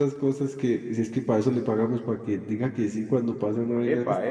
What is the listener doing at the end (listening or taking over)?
taking over